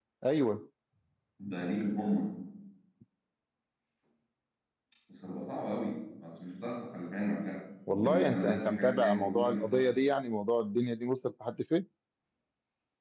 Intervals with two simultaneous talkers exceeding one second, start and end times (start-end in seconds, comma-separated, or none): 7.9-9.9